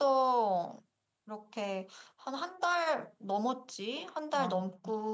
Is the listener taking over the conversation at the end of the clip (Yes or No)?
No